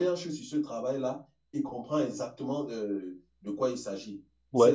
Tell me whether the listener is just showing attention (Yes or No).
No